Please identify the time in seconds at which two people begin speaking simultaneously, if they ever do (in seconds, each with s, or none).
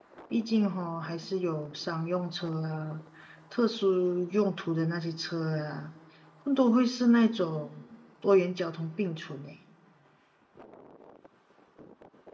none